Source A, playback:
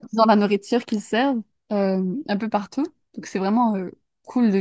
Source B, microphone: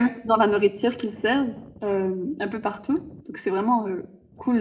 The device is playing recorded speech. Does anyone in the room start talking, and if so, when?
none

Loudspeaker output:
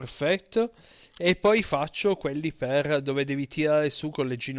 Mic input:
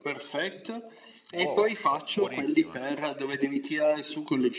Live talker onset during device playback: 1.3 s

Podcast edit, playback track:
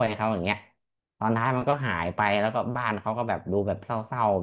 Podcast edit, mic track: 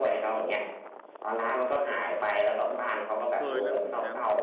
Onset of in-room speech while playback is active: 3.3 s

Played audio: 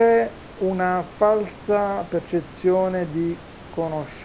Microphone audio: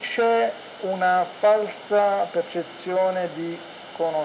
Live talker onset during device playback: none

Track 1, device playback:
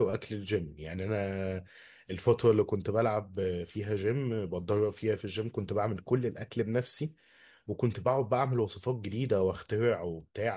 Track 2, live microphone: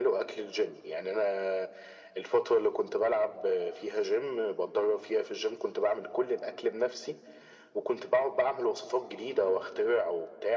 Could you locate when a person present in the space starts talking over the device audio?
none

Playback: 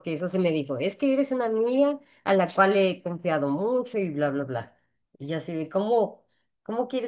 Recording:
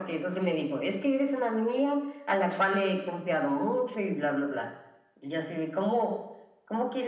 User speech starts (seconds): none

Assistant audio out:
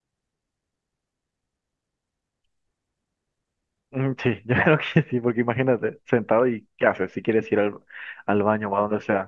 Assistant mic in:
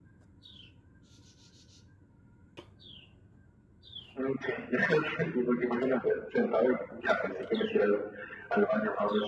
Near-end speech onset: none

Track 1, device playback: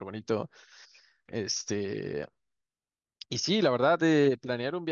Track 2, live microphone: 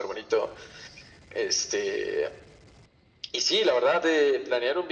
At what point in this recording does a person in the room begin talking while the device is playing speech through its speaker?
none

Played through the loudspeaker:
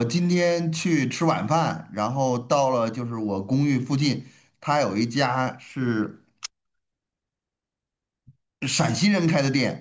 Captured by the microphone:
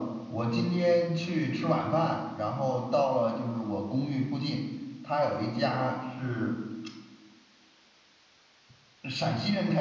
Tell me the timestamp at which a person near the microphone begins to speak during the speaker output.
none

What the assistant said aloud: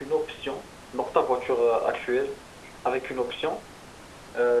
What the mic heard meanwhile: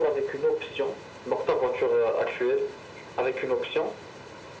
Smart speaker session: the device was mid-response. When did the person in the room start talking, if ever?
none

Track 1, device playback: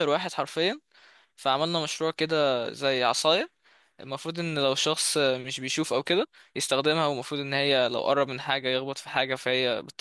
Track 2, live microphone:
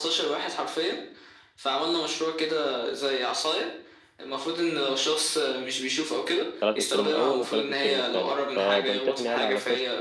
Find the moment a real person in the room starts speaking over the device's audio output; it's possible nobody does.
6.6 s

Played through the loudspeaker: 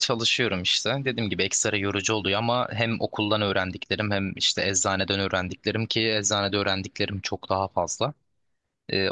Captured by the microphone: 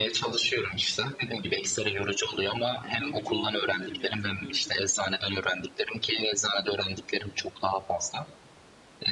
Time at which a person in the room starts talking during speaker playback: 3.0 s

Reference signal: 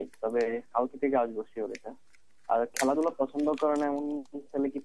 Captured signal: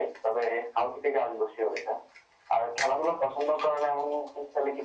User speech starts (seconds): none

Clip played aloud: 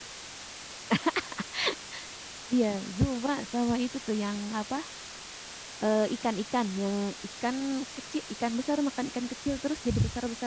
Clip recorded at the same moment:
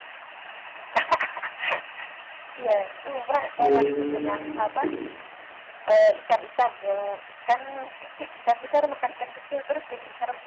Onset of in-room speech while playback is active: 3.6 s

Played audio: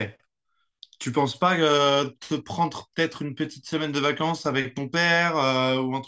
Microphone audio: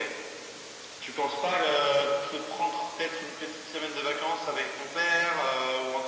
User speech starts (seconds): none

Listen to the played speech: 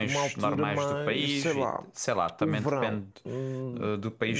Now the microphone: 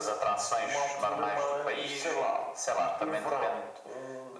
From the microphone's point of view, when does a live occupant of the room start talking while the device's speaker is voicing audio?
none

